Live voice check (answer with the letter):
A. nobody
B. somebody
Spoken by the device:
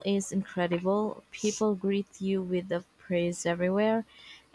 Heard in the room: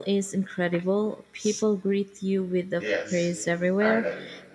B